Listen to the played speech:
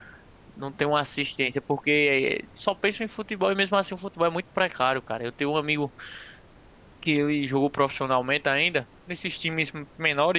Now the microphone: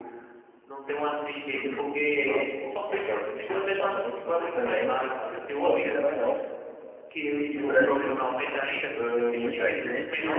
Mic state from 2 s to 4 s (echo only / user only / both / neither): both